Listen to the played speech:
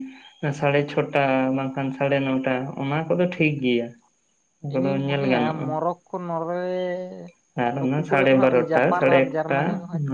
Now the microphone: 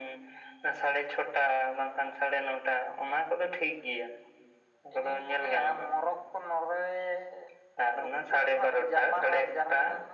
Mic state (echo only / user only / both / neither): echo only